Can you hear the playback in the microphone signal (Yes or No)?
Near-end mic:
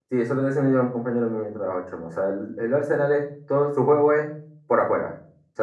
No